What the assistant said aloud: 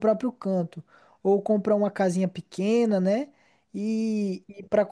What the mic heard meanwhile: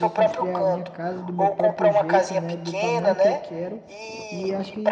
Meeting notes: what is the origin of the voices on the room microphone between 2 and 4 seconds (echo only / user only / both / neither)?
both